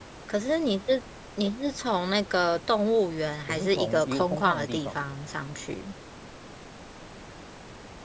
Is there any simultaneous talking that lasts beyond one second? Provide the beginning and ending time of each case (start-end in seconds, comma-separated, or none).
3.4-5.0